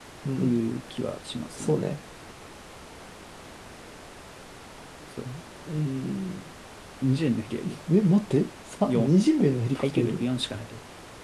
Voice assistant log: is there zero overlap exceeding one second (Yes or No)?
Yes